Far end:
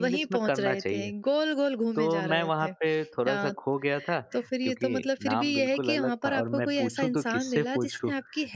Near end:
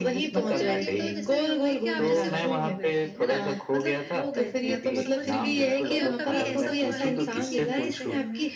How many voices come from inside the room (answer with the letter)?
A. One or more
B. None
A